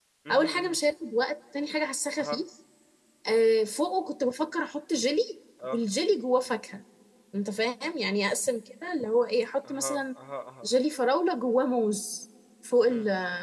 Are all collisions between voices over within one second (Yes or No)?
Yes